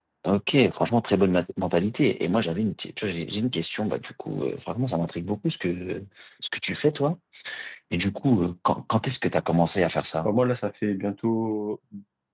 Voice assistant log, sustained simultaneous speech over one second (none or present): none